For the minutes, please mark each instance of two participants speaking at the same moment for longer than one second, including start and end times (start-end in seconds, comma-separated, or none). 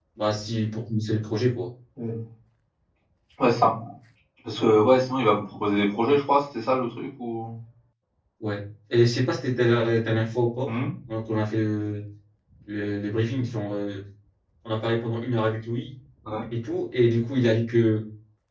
none